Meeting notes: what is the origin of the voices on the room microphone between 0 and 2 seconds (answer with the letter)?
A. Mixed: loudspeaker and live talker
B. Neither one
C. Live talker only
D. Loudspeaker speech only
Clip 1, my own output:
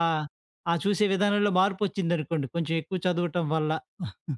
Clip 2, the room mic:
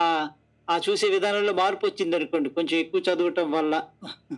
D